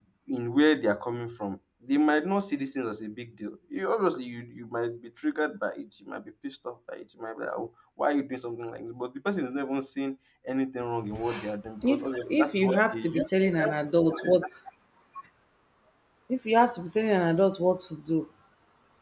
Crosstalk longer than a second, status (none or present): present